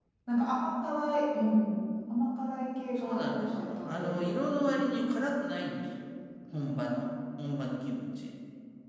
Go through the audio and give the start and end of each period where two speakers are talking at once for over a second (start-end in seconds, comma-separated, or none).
3.0-4.2